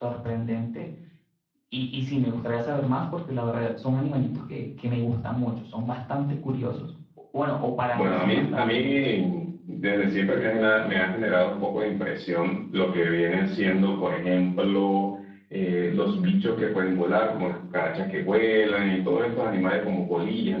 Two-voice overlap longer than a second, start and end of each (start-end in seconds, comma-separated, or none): 7.9-9.1